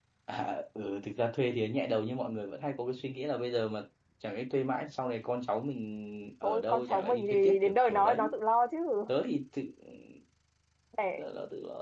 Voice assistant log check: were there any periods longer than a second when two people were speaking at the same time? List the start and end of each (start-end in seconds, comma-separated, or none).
6.4-8.4